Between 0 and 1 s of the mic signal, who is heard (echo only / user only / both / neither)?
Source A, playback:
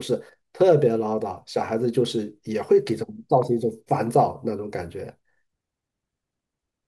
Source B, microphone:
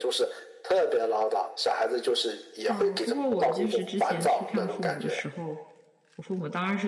echo only